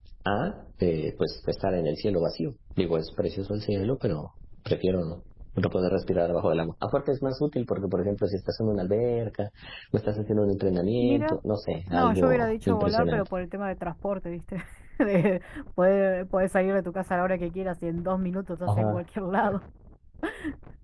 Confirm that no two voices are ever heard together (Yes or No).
No